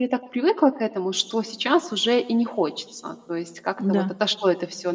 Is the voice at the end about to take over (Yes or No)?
No